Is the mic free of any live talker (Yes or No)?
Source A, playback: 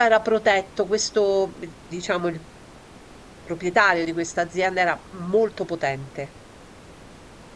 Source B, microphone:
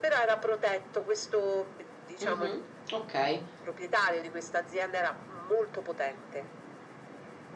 No